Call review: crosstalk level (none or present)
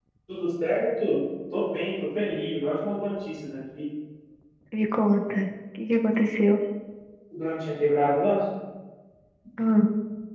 none